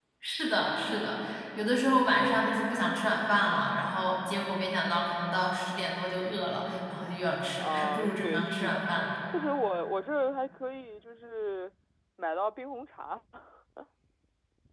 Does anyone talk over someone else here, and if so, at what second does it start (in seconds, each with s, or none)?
7.6 s